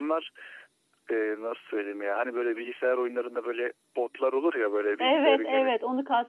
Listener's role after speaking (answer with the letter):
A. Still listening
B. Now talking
B